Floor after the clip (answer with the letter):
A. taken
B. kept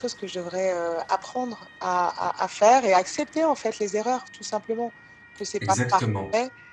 B